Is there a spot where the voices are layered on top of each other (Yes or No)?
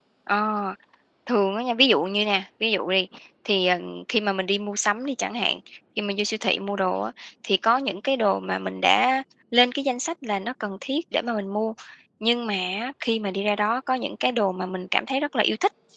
No